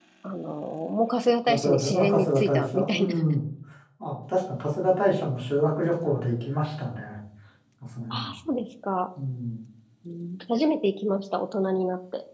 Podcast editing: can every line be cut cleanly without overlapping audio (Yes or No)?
No